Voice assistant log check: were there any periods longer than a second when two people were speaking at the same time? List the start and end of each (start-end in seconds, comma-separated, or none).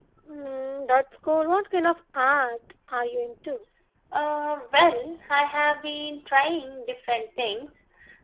none